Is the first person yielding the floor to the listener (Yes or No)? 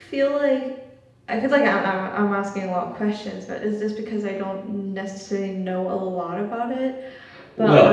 Yes